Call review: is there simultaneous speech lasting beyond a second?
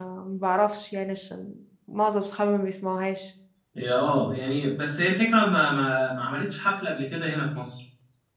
No

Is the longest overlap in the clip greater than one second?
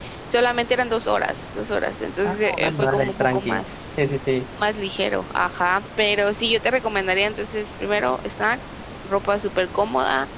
Yes, from 2.2 s

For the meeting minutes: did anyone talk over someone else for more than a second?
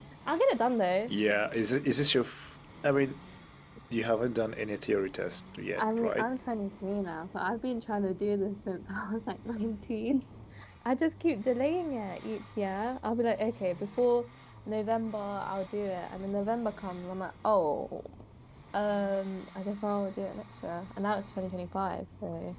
No

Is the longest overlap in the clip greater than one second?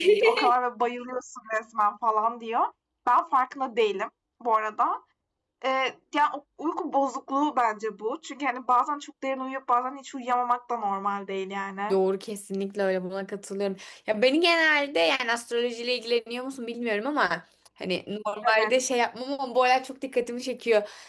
No

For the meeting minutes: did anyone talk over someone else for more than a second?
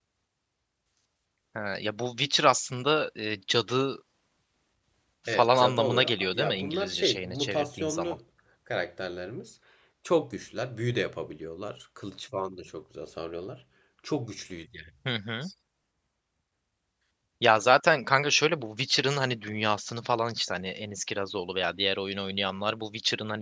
Yes, from 5.3 s

